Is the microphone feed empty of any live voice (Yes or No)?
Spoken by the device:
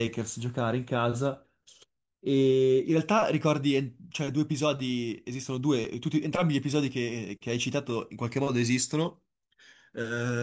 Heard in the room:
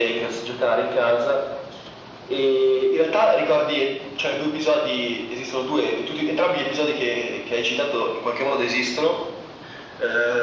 Yes